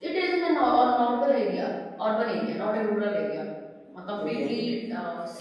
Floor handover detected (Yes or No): No